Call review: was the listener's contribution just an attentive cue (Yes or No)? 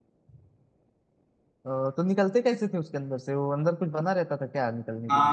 No